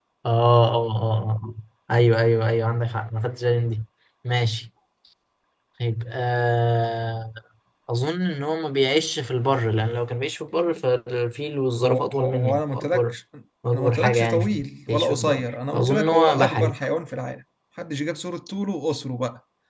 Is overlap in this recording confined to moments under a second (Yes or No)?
No